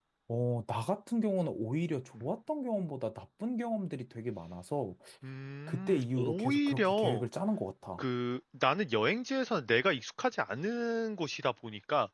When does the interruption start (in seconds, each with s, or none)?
5.7 s